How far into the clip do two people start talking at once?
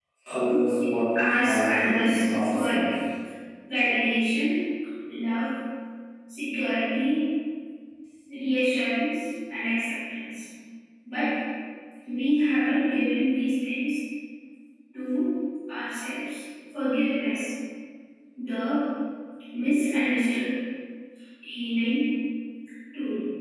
1.2 s

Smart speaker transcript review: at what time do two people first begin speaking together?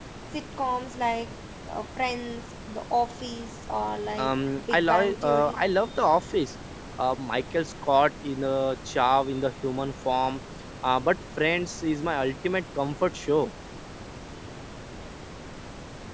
4.1 s

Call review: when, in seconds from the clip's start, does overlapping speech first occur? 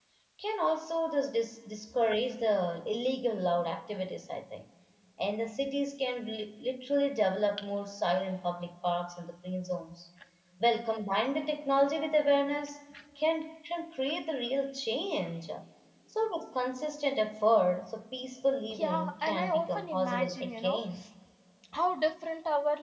18.7 s

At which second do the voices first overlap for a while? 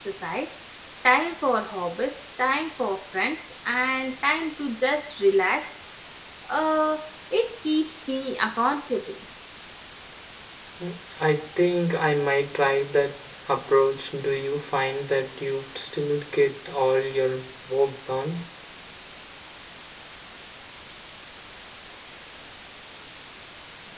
none

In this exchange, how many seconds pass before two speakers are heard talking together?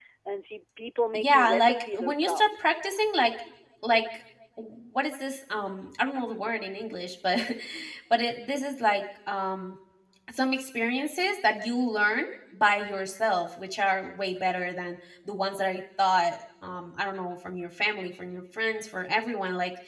1.1 s

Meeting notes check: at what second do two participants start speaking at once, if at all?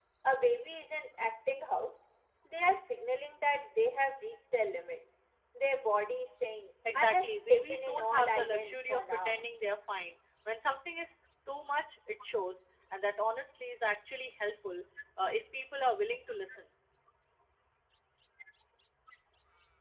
6.8 s

